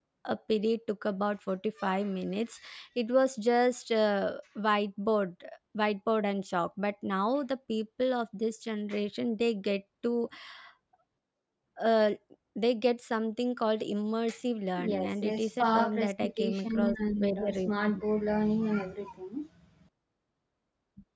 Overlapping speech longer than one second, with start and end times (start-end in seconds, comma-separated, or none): 14.9-18.0